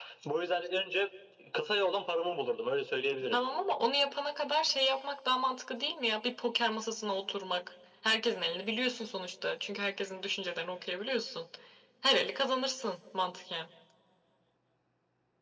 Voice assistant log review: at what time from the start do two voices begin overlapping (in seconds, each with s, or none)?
none